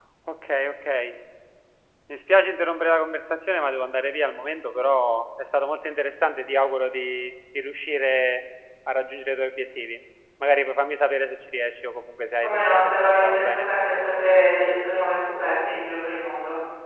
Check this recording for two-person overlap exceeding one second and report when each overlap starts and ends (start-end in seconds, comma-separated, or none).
12.4-13.7